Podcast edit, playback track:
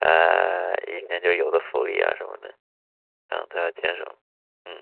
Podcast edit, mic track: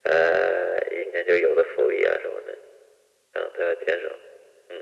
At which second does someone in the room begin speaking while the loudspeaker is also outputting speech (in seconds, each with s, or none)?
none